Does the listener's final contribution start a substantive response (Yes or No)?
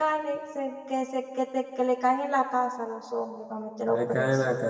Yes